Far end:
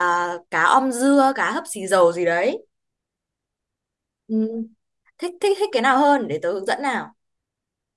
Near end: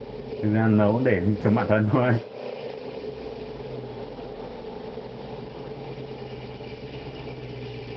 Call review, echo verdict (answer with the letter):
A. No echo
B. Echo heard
A